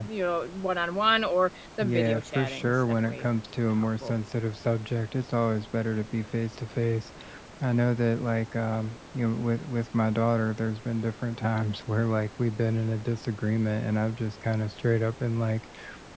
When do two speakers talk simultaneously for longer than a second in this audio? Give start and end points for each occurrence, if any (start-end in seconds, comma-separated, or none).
1.8-3.3